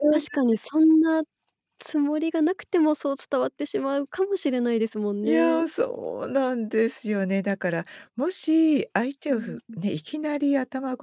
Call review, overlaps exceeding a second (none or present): none